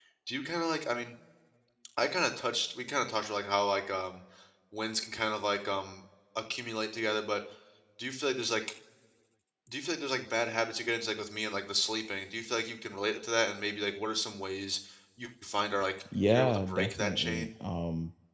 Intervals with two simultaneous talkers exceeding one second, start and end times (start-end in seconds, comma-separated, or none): 16.3-17.5